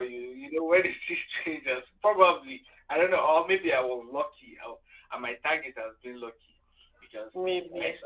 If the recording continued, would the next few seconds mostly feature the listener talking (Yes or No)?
No